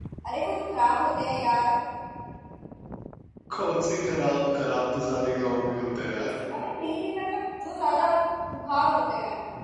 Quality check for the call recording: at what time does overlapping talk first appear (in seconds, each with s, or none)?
none